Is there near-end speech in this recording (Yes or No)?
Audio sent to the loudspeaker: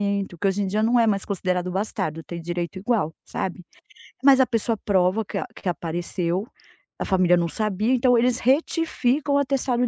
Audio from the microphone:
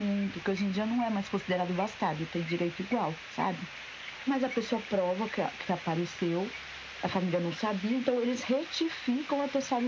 No